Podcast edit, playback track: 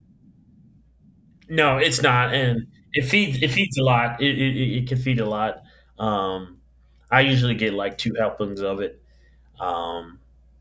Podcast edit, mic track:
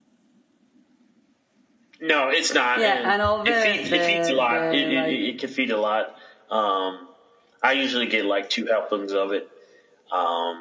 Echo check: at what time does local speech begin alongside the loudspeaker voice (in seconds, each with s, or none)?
2.7 s